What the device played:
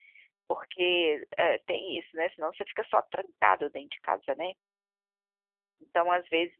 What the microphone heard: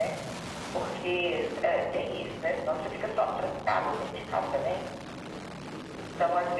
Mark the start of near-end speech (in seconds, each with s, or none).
none